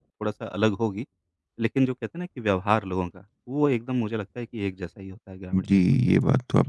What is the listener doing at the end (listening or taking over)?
taking over